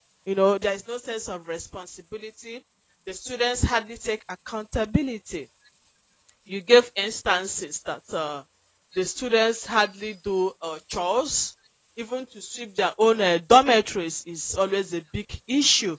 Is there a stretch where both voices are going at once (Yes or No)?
No